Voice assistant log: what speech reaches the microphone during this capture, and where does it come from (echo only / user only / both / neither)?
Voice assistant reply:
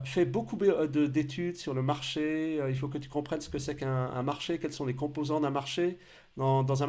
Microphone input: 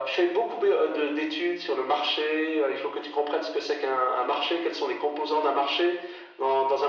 echo only